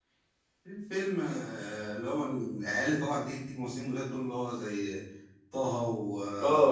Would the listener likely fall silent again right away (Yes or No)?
No